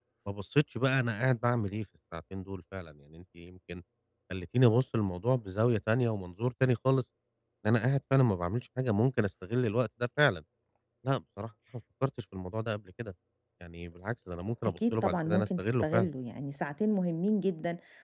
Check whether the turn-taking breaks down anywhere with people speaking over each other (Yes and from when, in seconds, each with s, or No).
Yes, from 14.7 s